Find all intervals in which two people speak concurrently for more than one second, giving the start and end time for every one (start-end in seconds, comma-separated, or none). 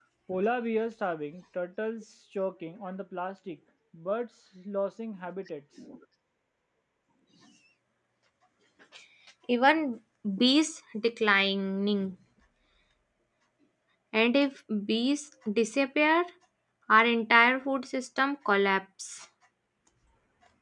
none